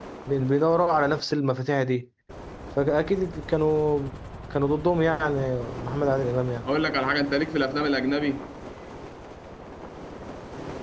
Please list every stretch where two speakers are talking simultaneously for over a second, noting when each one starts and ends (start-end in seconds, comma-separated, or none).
none